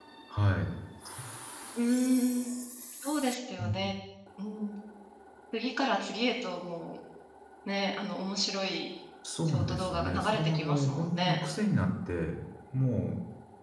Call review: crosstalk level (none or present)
present